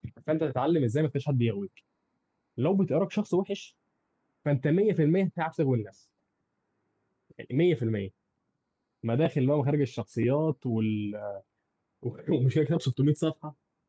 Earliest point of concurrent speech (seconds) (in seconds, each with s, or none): none